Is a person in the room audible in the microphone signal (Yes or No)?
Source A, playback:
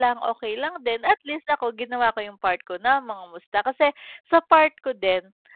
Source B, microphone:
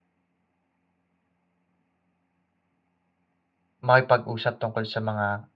Yes